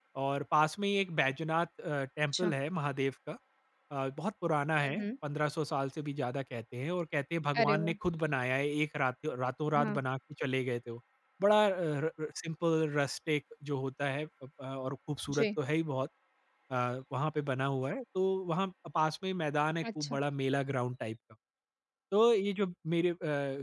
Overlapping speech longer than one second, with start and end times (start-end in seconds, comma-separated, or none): none